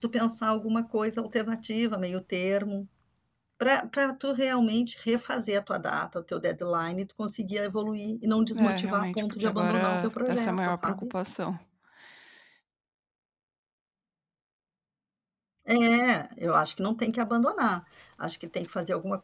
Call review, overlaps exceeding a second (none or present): present